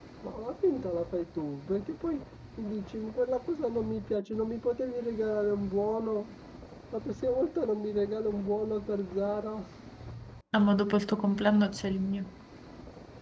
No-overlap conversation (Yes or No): Yes